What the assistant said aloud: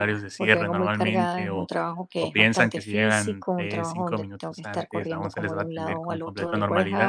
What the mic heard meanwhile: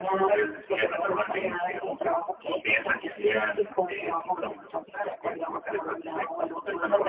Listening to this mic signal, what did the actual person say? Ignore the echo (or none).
none